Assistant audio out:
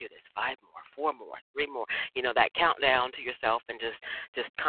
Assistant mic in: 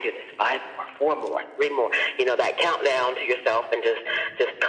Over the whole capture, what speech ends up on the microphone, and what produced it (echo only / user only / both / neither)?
echo only